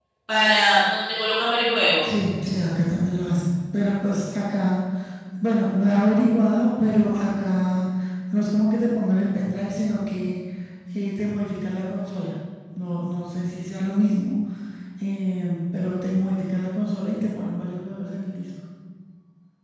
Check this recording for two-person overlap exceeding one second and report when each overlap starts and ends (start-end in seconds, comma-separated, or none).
none